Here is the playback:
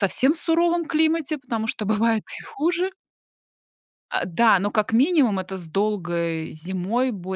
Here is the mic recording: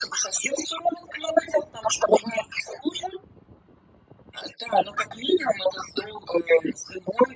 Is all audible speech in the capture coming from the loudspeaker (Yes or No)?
Yes